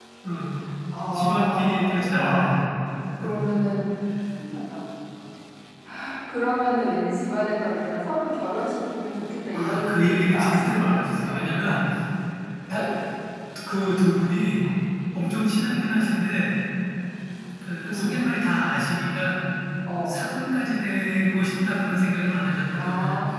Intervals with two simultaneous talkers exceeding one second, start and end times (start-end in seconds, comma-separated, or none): 1.1-2.6, 9.5-11.8